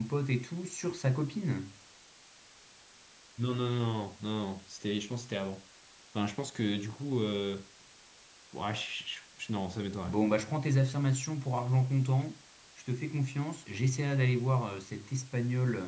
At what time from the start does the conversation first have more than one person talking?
none

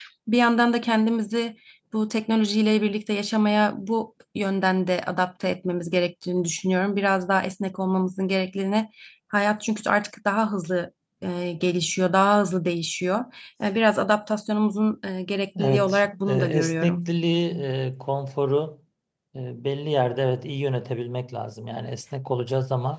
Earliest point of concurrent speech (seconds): 15.6 s

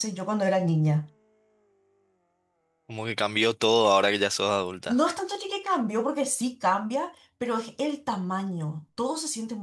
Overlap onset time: none

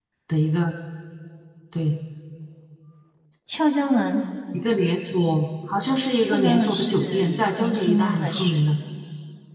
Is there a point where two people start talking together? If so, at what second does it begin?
6.2 s

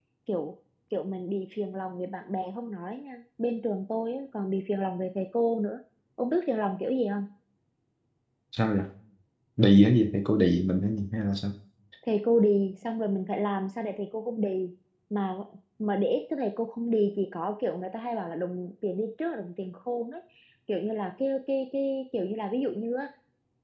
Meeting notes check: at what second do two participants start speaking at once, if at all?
none

